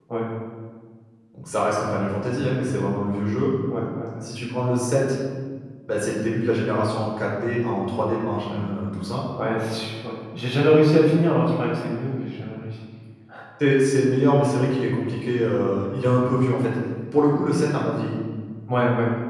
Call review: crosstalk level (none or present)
none